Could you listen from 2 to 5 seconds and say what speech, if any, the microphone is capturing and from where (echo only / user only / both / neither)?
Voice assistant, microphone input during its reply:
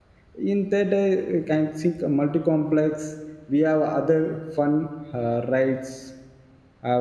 user only